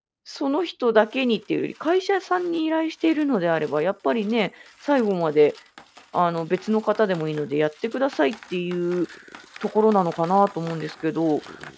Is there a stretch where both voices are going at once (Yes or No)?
No